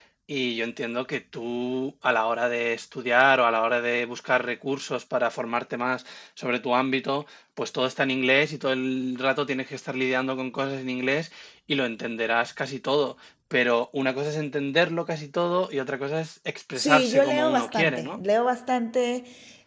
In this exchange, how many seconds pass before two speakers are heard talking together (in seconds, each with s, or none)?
16.8 s